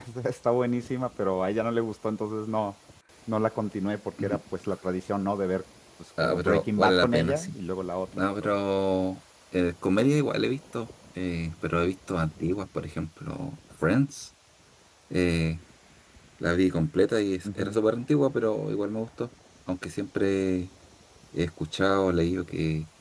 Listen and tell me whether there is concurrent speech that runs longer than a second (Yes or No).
Yes